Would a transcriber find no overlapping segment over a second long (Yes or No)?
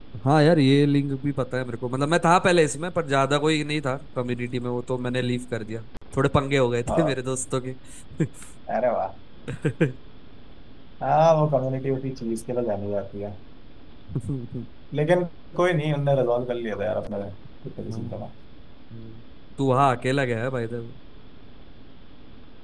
Yes